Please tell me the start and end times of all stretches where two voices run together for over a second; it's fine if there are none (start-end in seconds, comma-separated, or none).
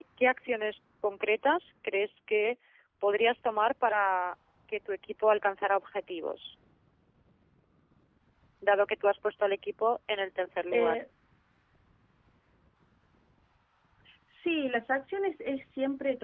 none